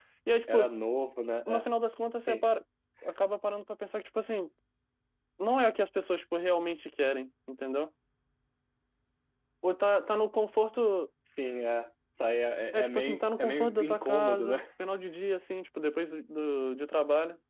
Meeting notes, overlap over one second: present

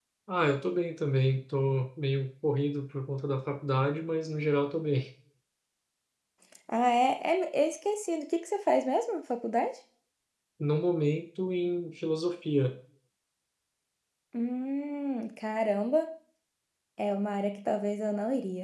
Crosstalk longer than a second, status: none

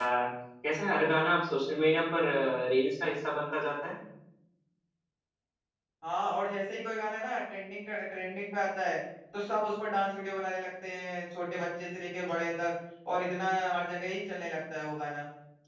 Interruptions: none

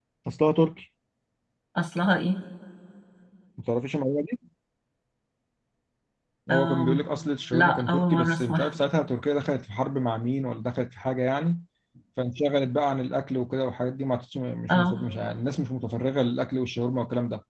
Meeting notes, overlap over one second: present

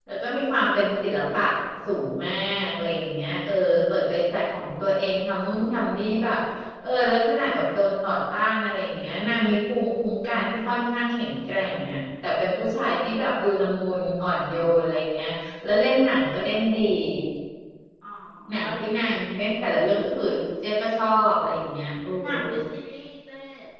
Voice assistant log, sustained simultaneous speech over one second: none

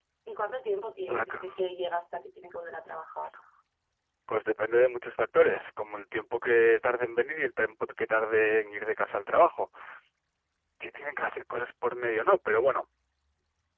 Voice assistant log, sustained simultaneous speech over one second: none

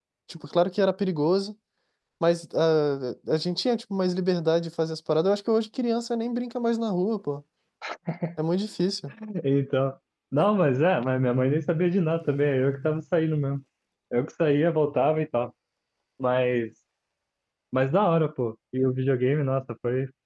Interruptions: none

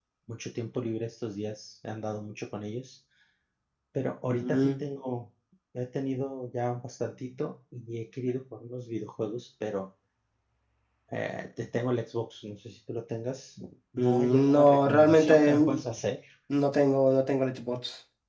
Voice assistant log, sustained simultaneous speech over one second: present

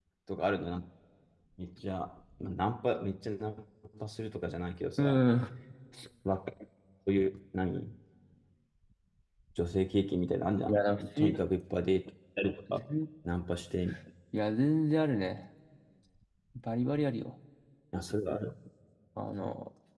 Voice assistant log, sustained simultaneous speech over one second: none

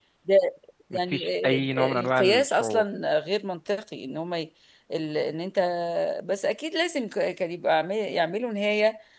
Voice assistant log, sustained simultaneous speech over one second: present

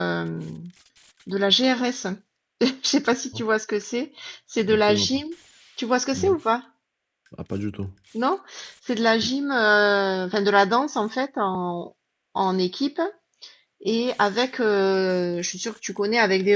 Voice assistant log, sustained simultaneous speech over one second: none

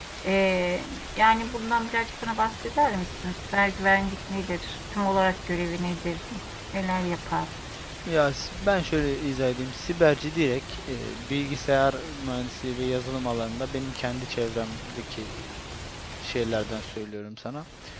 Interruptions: none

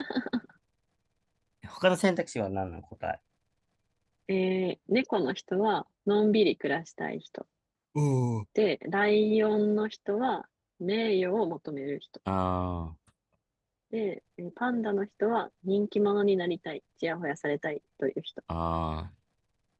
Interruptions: none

